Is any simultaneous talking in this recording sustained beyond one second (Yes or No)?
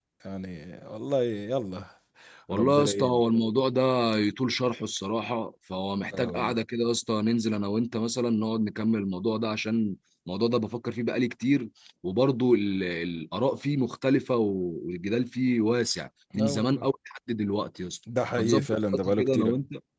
Yes